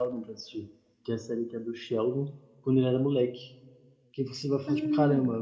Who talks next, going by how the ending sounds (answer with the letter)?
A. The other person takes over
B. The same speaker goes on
B